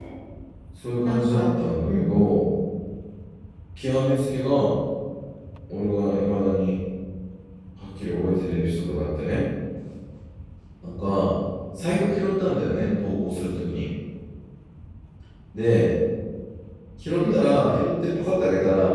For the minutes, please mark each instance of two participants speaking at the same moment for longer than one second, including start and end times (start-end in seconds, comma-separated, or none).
1.0-2.3